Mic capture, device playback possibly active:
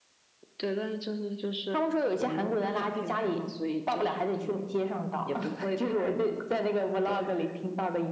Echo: present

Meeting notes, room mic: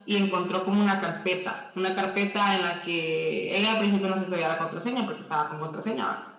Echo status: present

